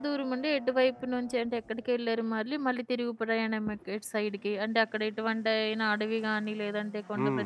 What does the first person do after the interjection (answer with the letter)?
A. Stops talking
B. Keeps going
A